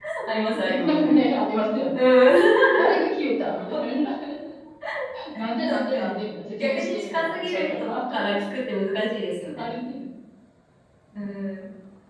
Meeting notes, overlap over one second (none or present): present